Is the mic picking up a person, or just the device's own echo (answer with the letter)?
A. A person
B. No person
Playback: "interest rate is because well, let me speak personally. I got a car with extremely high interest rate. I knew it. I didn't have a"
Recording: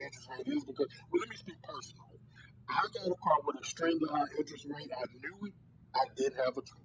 B